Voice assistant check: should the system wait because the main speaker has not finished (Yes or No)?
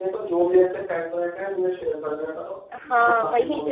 No